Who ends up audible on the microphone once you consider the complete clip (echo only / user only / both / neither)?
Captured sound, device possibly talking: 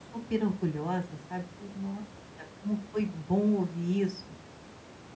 user only